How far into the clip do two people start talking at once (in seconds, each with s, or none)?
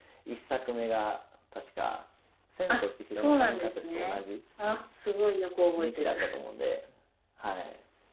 2.7 s